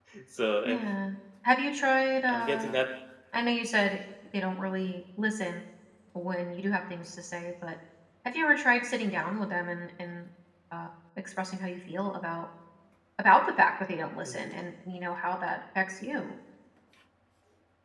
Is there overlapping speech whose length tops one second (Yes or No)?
No